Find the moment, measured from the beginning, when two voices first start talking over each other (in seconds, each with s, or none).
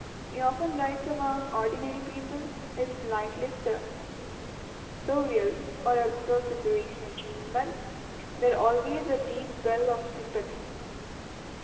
none